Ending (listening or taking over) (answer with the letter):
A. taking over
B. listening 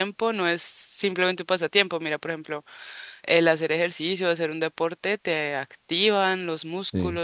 B